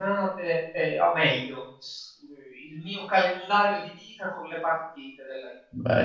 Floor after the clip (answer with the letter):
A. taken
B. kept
A